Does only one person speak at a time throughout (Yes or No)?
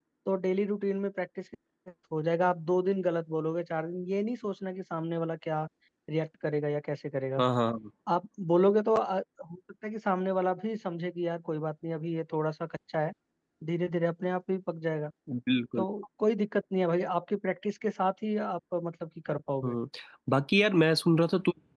Yes